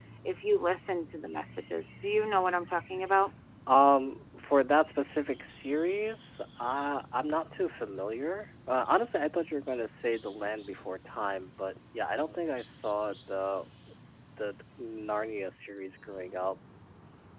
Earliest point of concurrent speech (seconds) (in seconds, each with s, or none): none